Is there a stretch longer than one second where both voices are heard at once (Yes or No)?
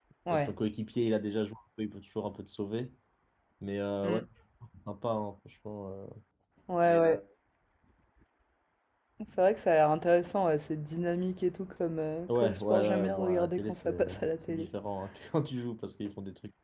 Yes